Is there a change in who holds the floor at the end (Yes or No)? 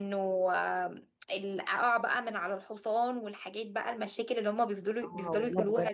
Yes